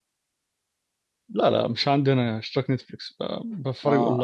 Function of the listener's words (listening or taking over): taking over